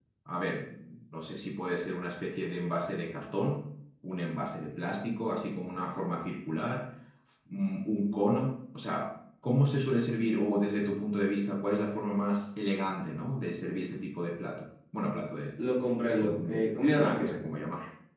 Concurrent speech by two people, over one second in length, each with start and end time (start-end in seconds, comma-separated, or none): 16.1-17.4